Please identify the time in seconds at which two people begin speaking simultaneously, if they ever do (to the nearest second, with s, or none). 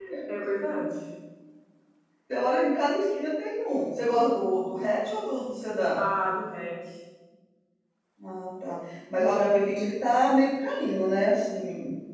none